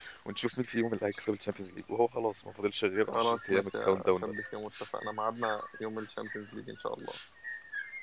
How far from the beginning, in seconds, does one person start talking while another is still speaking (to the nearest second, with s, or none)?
3 s